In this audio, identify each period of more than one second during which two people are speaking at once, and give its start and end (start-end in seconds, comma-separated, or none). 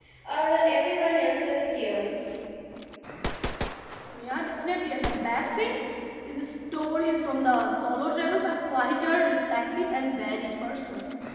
none